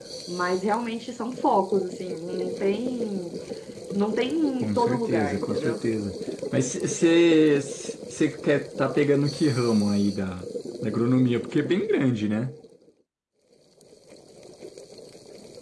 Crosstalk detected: Yes, from 4.6 s

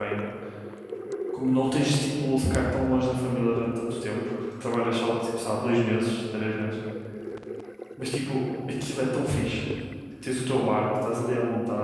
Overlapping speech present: No

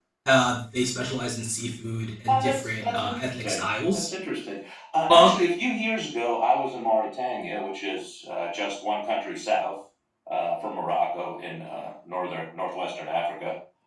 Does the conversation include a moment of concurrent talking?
Yes, from 2.3 s

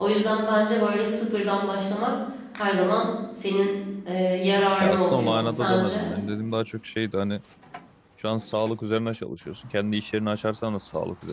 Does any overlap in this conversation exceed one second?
Yes, from 4.8 s

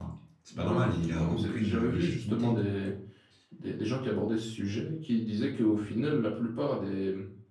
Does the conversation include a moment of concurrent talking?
Yes, from 0.6 s

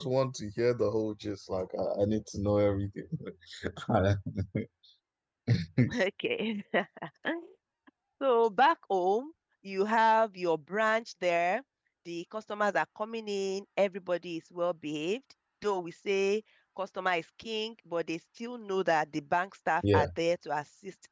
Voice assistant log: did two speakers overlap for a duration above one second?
No

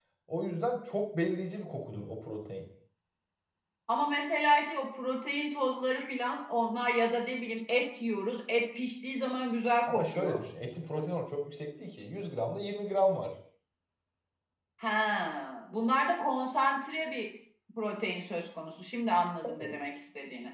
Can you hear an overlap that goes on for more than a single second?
No

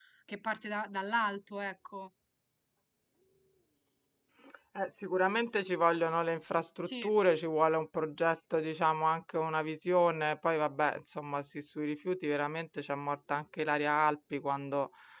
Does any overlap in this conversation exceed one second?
No

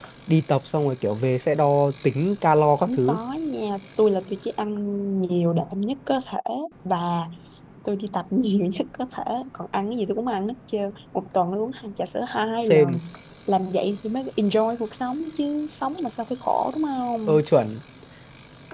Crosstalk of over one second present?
No

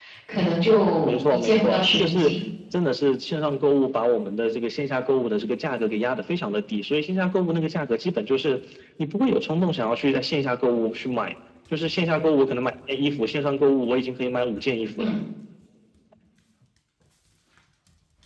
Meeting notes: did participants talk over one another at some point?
Yes, from 1.0 s

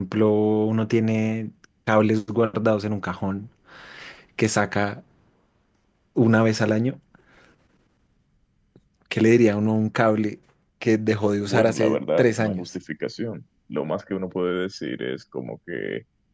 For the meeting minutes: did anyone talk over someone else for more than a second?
Yes, from 11.4 s

